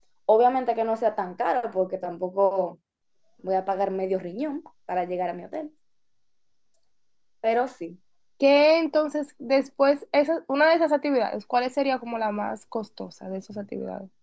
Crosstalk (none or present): none